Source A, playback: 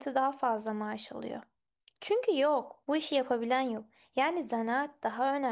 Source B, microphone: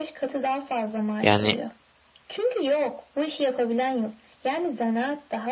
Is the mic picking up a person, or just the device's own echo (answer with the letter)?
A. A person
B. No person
A